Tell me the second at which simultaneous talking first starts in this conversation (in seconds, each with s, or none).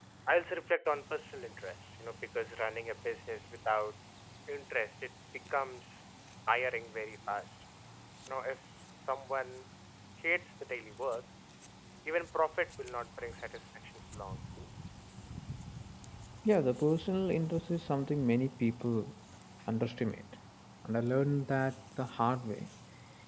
none